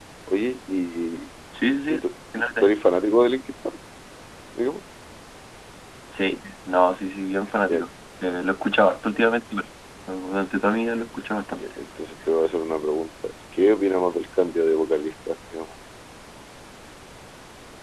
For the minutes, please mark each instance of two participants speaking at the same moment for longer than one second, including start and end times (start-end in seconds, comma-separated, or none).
none